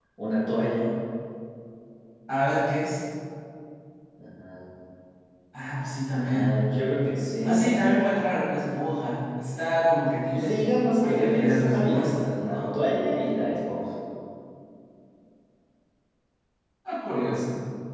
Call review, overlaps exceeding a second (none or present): present